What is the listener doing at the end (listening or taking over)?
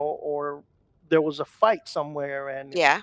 listening